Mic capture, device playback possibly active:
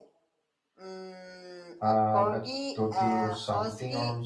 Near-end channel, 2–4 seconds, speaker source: both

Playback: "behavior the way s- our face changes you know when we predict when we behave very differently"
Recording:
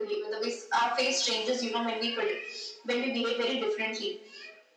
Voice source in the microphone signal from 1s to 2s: echo only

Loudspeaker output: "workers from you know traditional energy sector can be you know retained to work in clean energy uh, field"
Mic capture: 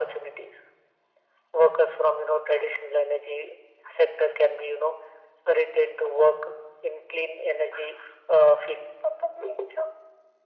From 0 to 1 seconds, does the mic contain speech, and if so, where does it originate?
echo only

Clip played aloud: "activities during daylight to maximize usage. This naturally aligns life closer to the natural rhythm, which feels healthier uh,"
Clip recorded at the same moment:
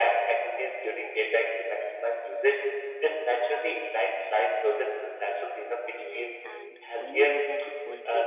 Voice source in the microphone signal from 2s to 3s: echo only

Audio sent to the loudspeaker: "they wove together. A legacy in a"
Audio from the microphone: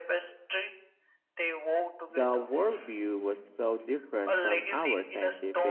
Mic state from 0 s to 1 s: echo only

